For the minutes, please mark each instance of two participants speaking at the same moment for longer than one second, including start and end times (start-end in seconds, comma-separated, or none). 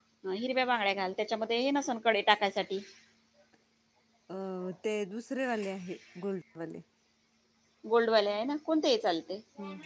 none